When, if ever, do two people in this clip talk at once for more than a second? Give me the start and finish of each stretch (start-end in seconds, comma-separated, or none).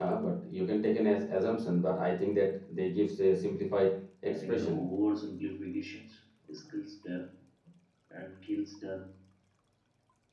none